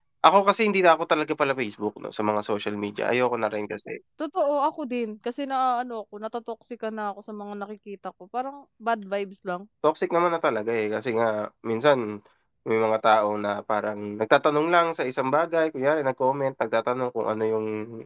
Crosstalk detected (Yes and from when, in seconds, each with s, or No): No